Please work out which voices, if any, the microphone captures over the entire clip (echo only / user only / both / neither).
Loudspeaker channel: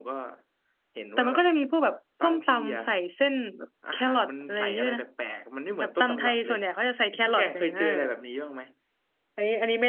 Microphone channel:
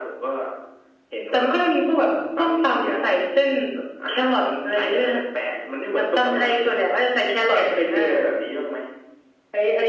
echo only